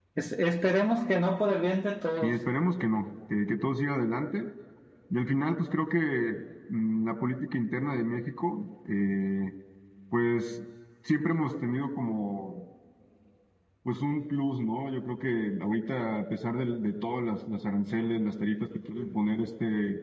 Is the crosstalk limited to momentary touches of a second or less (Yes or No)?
Yes